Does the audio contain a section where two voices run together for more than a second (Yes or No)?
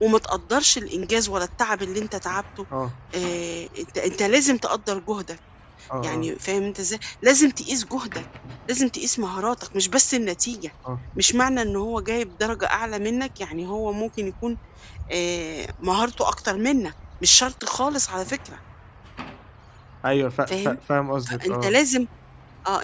No